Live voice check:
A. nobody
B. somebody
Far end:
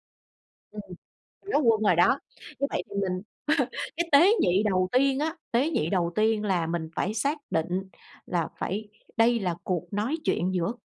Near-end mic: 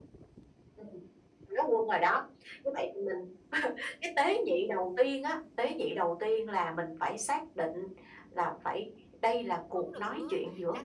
B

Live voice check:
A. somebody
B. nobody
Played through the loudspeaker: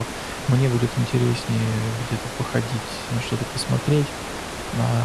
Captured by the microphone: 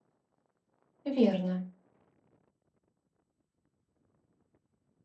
A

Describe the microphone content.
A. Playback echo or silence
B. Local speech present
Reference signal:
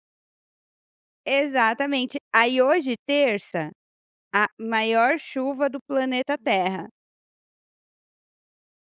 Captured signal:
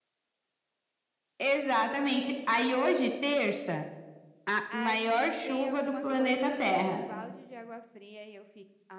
B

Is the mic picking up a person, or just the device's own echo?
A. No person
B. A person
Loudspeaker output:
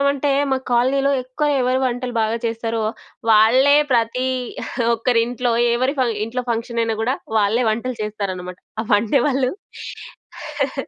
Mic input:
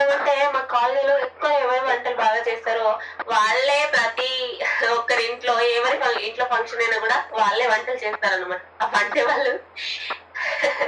A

